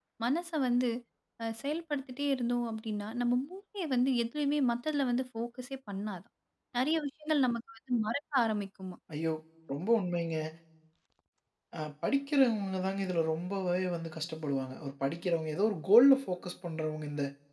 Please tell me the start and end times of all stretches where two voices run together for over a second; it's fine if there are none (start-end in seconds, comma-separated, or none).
none